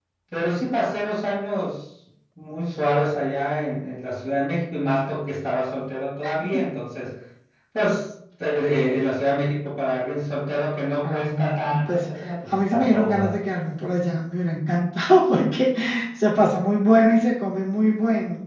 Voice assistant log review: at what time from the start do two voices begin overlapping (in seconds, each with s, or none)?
11.0 s